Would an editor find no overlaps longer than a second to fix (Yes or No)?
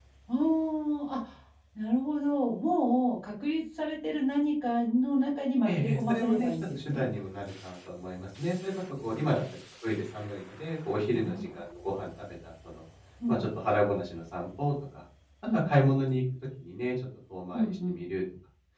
No